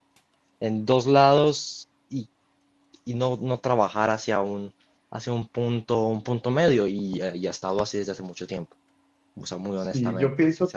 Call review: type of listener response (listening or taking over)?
taking over